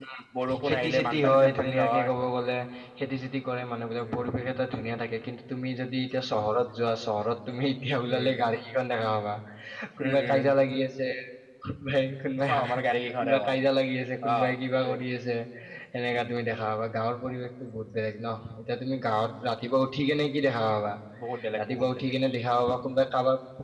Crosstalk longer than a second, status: present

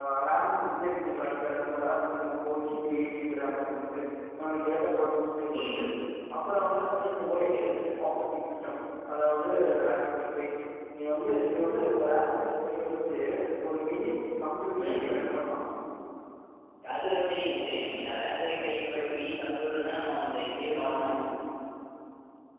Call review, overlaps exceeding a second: none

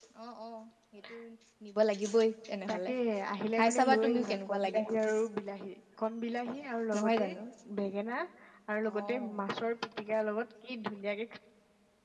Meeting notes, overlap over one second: present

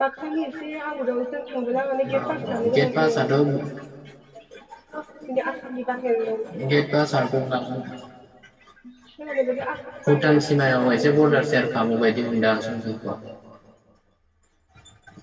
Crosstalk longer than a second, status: present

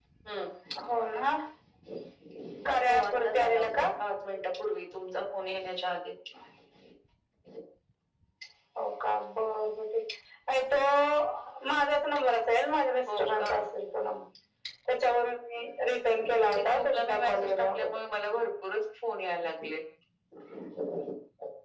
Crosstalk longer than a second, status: present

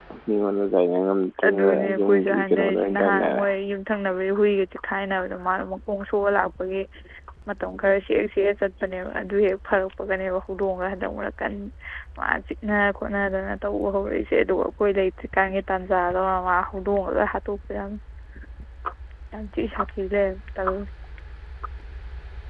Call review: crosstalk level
present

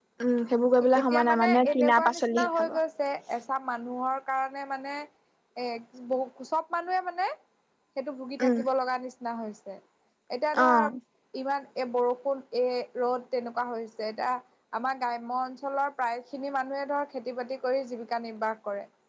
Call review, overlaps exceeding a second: present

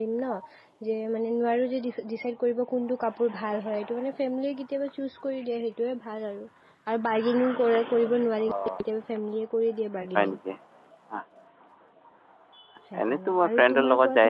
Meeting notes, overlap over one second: present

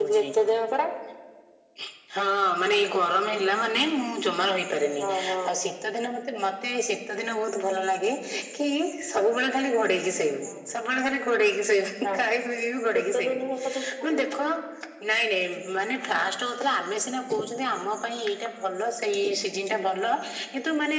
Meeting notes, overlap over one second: none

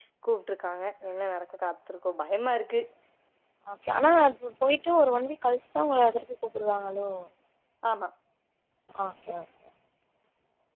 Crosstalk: none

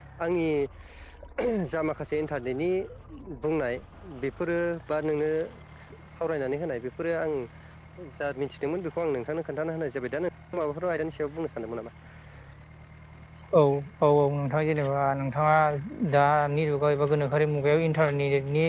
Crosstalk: none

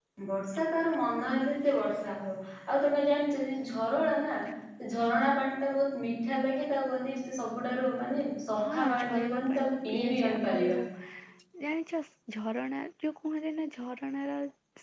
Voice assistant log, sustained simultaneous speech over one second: present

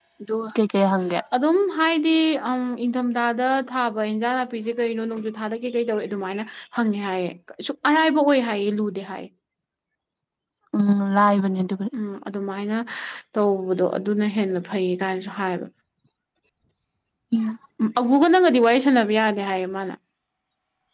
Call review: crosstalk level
none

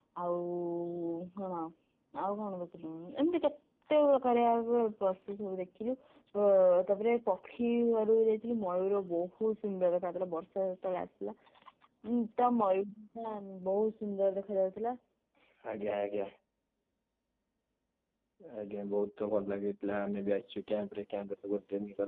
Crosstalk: none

